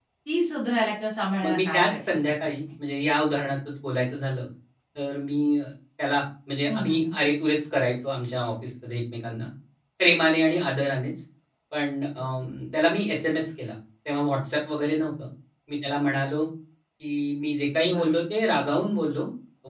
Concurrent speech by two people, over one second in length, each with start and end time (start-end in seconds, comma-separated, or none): 1.4-2.6